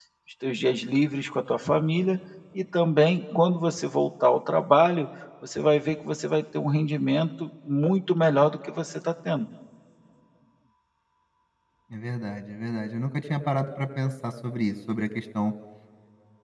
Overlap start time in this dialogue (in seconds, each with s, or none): none